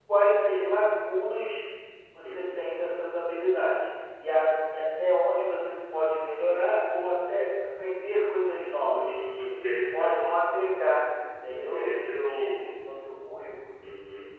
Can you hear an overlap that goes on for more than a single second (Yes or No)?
Yes